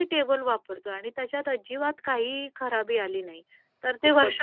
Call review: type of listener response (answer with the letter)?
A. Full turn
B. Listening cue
A